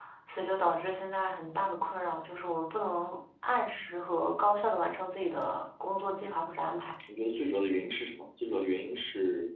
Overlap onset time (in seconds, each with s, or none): none